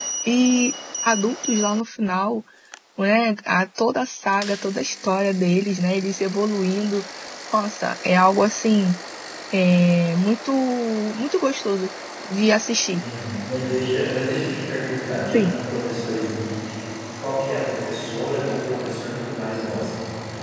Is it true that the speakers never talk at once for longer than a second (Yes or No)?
Yes